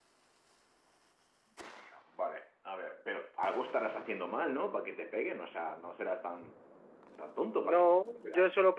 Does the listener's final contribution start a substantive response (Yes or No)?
Yes